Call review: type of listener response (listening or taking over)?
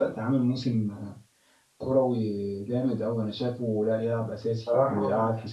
listening